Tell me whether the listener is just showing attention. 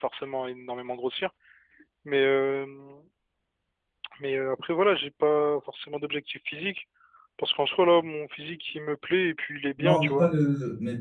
No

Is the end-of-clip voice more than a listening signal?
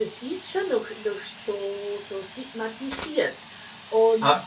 Yes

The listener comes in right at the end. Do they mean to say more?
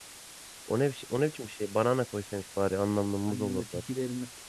Yes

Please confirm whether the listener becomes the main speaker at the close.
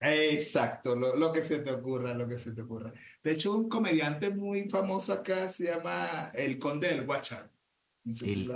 Yes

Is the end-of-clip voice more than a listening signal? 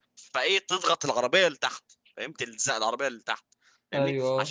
No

